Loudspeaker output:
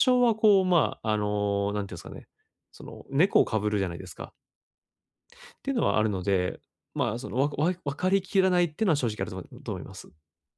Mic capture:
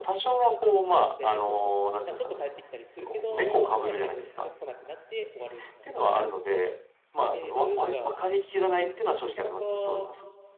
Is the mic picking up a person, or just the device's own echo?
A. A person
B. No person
A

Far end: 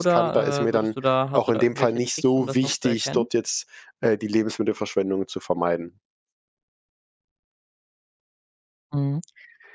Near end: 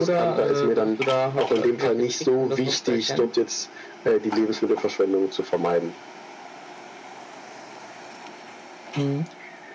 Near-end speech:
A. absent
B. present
A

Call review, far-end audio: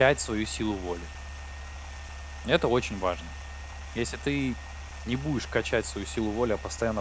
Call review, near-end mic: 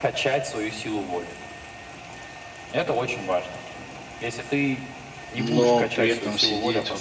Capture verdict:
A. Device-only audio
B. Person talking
B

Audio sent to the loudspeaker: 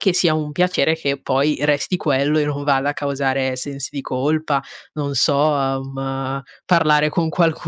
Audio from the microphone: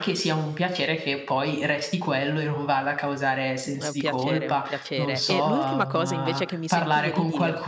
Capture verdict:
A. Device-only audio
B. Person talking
B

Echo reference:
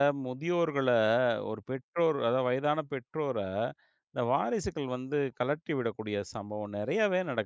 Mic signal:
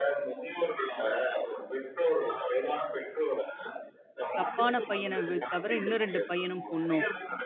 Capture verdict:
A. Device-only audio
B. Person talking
B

